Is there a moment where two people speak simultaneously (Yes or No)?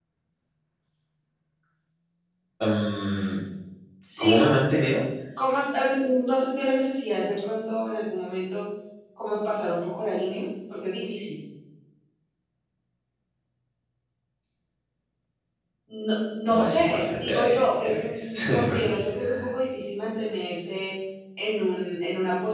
Yes